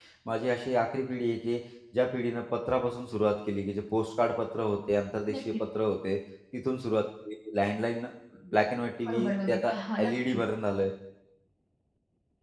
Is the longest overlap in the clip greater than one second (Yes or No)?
Yes